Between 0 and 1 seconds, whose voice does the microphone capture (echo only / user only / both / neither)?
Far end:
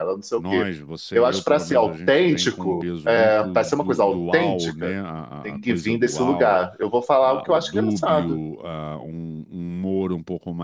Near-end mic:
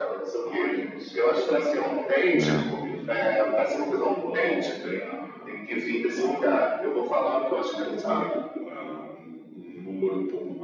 echo only